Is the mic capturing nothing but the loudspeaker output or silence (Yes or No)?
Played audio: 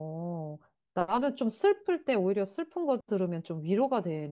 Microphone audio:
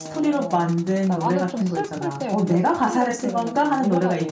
No